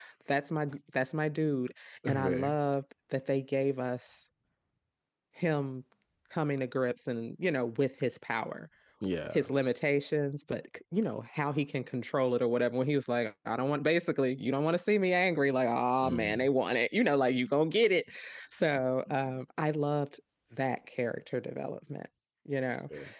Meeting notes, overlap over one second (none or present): none